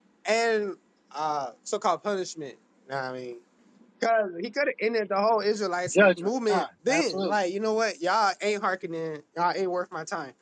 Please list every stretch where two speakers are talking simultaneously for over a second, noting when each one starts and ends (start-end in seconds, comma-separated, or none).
5.9-7.4